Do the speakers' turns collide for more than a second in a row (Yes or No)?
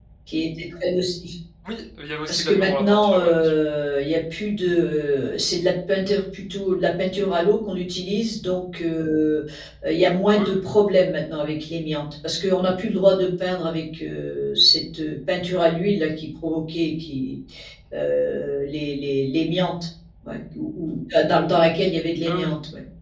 Yes